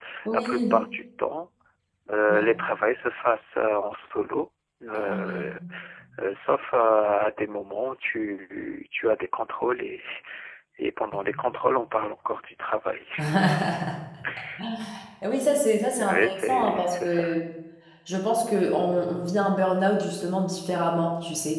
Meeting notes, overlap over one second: present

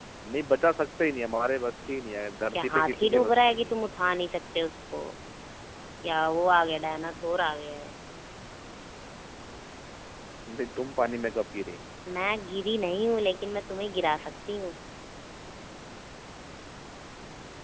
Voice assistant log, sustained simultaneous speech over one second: present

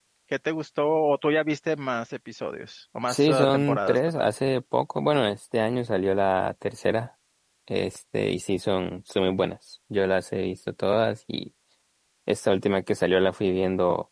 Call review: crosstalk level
present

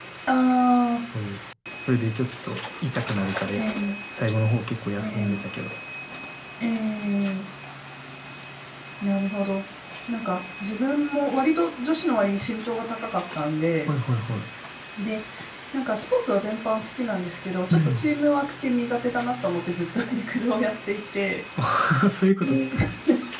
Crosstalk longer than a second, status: none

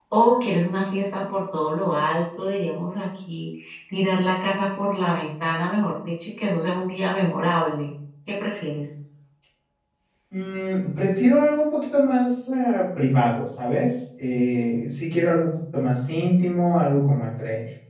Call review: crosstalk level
none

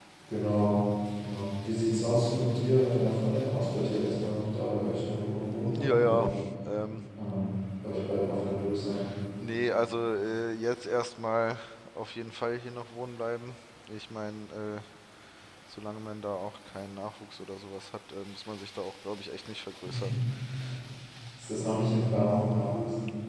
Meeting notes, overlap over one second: none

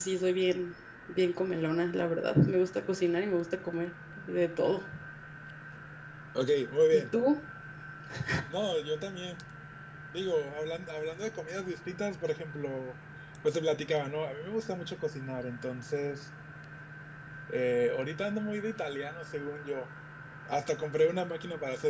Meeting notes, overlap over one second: none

